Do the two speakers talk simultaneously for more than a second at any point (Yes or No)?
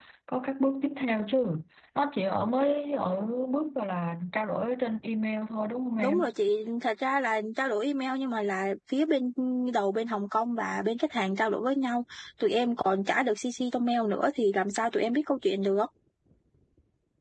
No